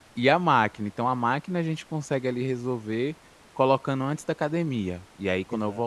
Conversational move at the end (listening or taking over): listening